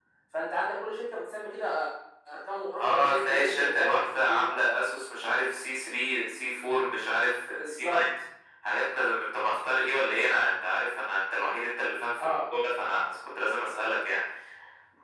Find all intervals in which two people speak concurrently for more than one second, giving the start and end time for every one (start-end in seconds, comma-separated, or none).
2.8-4.6